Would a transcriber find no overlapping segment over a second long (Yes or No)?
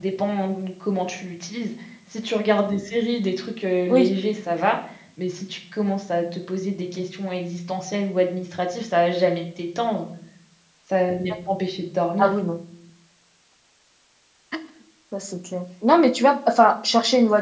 Yes